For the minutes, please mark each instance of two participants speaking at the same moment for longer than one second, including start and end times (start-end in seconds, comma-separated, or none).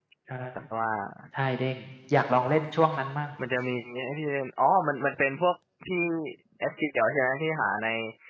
none